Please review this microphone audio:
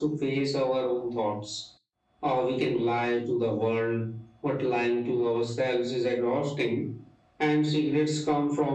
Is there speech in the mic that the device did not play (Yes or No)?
No